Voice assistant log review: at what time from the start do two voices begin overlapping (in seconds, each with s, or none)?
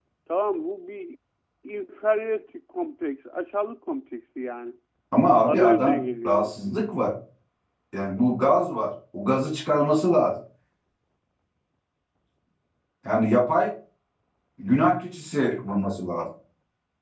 5.5 s